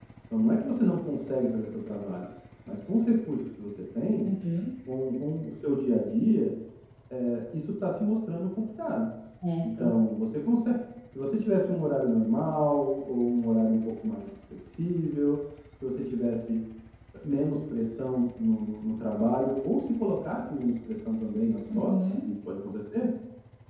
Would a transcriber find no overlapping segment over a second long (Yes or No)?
Yes